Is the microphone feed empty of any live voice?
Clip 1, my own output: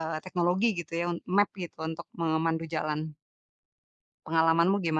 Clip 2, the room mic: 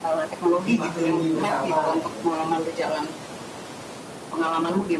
No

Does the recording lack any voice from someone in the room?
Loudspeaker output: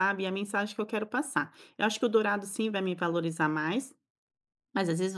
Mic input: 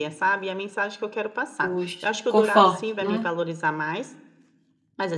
No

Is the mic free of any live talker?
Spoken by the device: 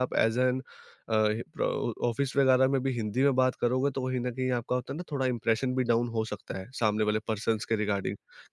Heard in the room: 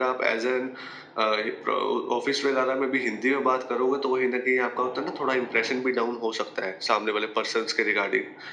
Yes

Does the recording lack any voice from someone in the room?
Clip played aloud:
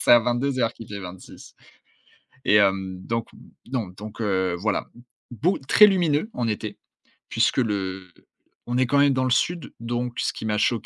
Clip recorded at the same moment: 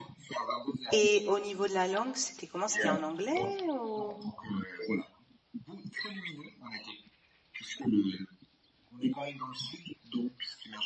No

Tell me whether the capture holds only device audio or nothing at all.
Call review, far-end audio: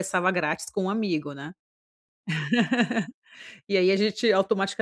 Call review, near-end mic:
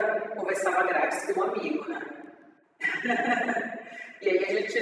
Yes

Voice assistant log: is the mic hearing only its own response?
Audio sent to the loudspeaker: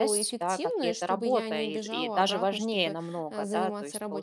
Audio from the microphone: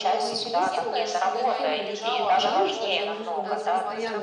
No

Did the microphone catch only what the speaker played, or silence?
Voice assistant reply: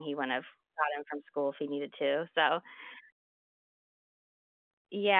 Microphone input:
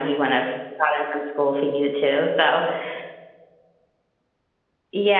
Yes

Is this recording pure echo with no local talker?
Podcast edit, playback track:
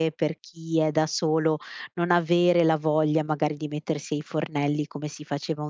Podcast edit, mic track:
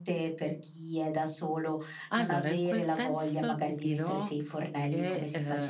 No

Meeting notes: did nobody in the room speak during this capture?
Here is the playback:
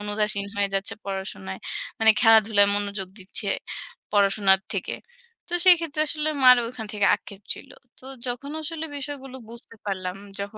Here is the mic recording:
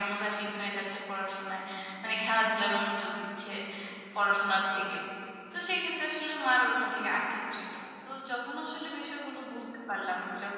Yes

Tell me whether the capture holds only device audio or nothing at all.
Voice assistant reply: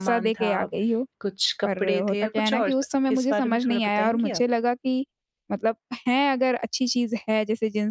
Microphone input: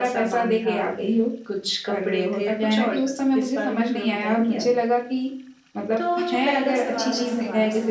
No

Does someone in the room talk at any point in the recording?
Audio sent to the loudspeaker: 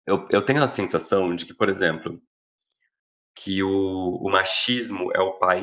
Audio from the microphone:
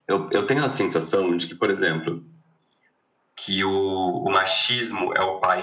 No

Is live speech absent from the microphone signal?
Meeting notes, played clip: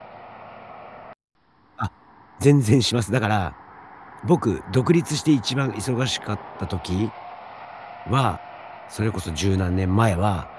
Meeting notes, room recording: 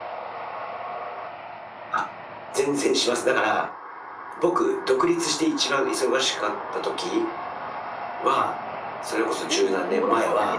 No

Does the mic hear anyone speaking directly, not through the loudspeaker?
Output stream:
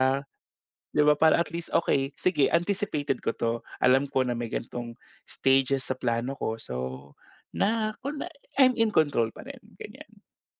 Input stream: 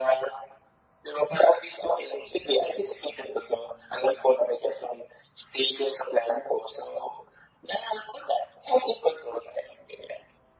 No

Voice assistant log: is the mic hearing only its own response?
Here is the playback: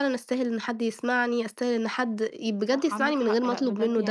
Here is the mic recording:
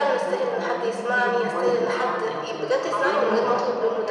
No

